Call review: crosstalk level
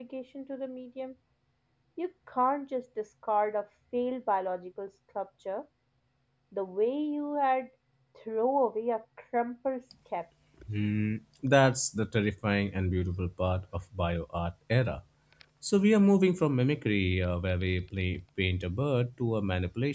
none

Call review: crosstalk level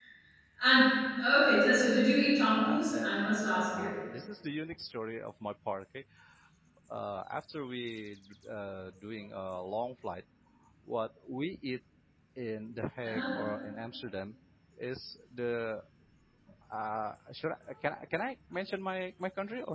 present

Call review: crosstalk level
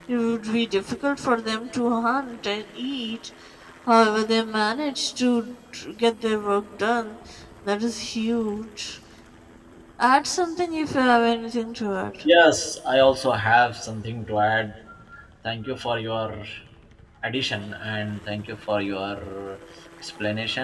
none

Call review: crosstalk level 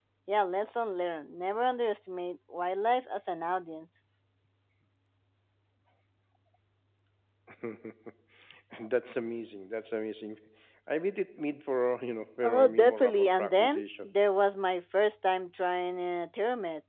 present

